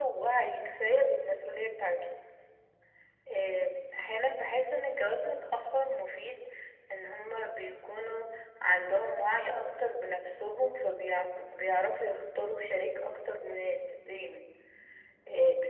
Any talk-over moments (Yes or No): No